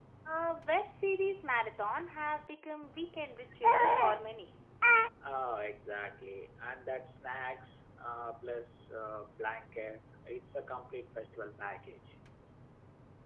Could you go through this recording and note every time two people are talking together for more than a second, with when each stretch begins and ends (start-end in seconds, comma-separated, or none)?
none